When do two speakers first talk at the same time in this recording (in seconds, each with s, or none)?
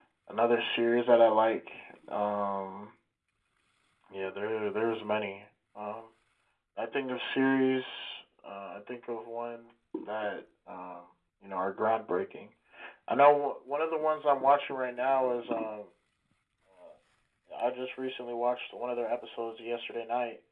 none